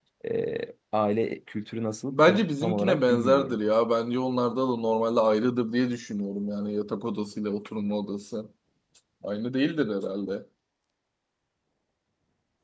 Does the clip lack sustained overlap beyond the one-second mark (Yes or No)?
No